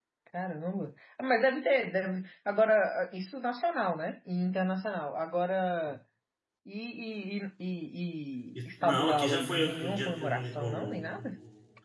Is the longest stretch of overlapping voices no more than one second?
No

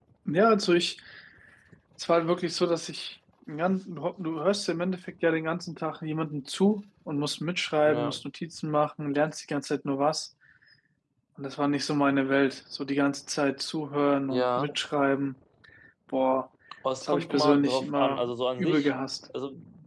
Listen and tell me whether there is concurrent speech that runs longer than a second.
Yes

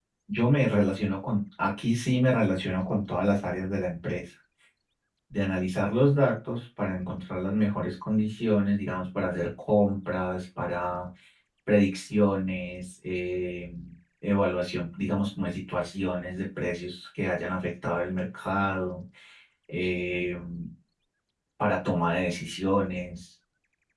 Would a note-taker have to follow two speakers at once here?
No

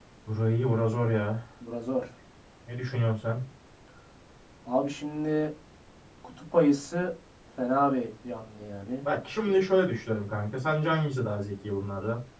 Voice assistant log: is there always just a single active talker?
Yes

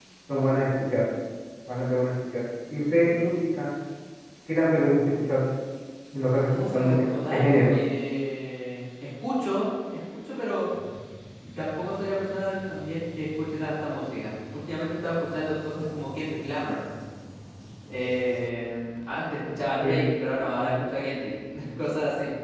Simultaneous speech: Yes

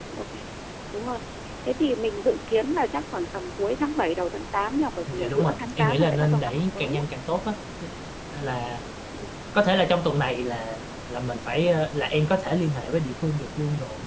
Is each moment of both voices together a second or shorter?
No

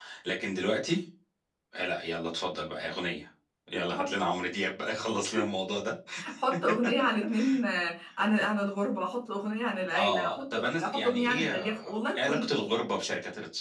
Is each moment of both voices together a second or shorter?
No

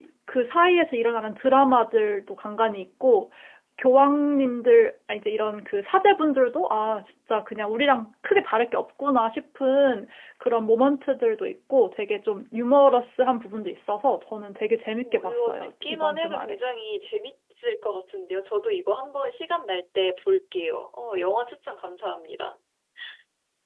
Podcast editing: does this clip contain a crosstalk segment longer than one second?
Yes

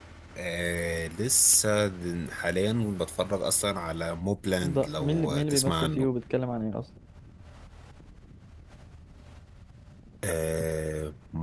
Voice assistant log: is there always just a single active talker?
No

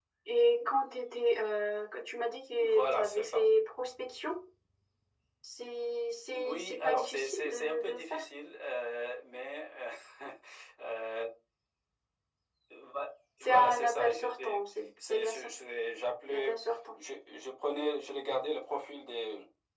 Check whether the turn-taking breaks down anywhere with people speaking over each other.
Yes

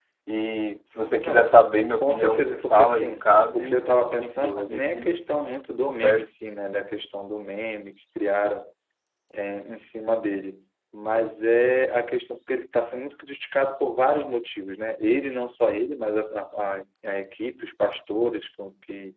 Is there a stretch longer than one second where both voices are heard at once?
Yes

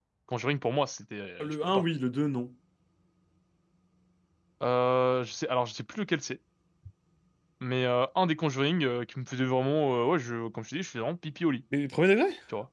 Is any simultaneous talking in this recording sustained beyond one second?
No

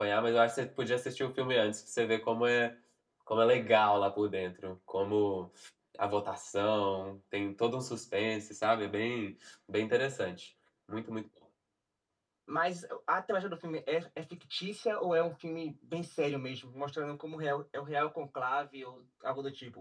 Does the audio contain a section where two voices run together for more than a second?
No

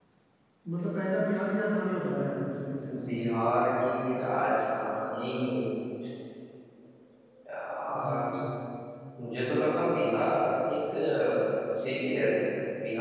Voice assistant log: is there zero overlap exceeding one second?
Yes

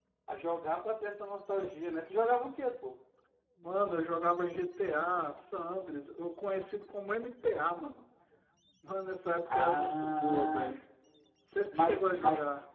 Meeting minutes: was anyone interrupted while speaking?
Yes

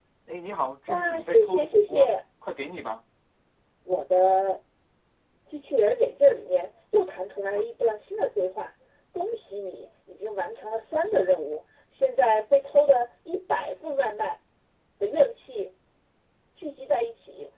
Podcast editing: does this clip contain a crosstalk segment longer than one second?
Yes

